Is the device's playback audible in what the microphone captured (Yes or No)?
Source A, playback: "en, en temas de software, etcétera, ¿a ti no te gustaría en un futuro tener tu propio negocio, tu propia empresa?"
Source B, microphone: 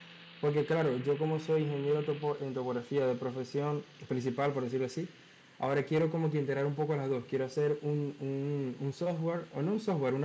No